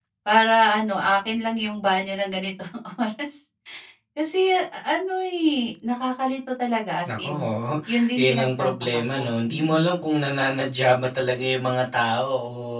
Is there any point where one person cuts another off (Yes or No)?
Yes